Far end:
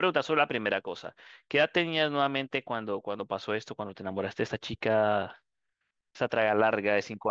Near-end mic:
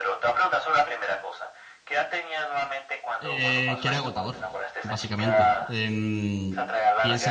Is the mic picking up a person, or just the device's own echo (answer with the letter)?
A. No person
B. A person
B